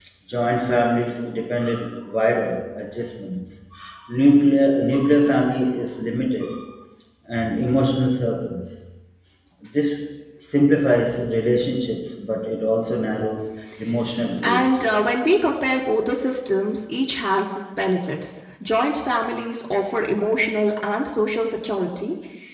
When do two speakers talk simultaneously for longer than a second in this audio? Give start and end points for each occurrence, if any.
none

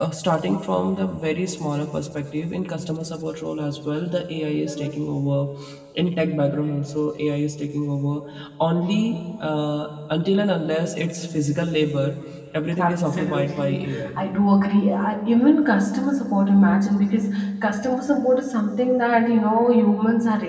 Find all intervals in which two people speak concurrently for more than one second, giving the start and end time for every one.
12.8-14.1

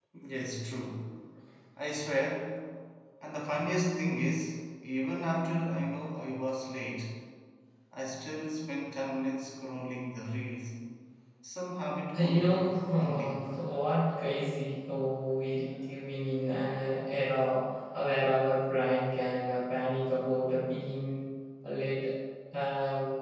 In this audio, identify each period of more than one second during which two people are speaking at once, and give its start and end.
12.1-13.4

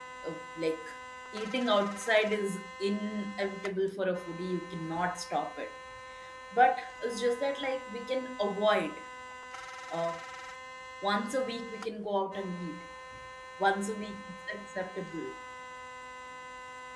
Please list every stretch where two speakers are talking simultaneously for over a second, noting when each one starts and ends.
none

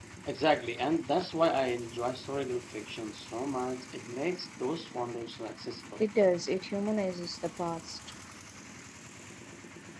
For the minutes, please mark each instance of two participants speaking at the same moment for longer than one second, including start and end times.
none

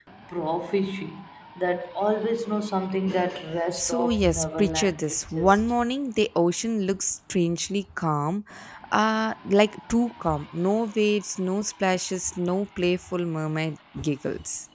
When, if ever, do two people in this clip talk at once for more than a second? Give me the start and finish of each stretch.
3.8-5.6

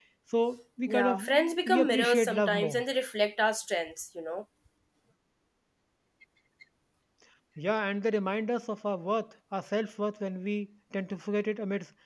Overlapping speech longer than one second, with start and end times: 0.9-2.8

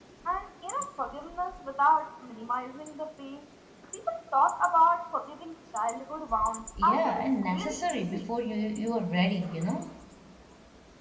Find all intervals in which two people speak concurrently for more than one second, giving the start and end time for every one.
6.8-8.2

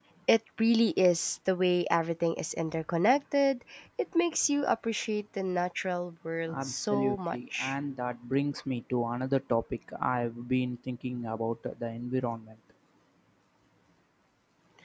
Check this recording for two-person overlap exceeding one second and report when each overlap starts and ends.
6.5-7.7

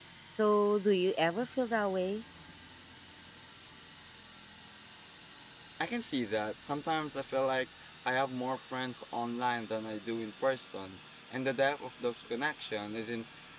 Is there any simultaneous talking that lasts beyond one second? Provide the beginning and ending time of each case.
none

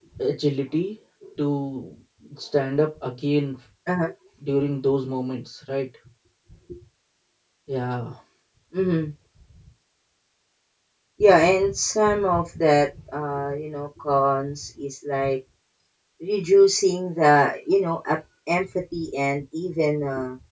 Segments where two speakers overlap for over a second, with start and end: none

